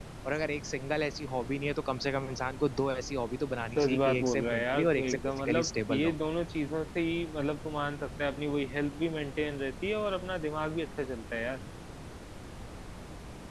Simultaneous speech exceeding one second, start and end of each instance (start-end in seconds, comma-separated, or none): 3.8-6.2